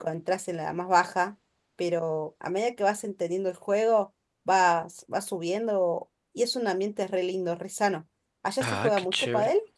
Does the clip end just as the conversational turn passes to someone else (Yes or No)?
Yes